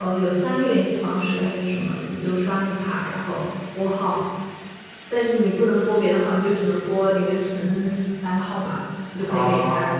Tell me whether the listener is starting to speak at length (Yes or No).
No